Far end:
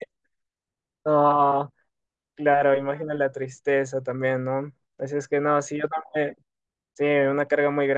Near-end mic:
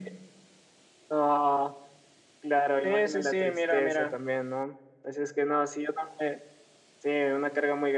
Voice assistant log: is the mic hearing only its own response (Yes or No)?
No